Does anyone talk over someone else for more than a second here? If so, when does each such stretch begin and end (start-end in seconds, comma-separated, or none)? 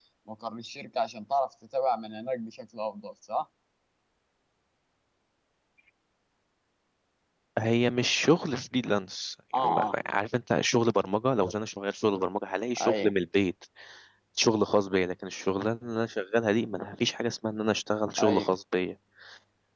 none